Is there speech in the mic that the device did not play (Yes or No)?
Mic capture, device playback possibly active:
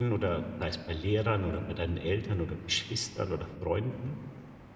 Yes